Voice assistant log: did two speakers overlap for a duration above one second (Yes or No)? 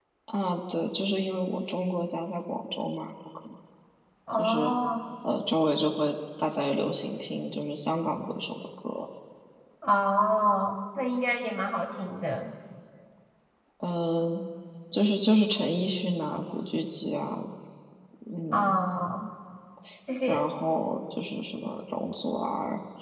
No